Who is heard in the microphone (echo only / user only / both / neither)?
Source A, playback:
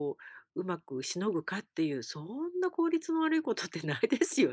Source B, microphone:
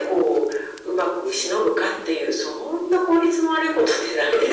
echo only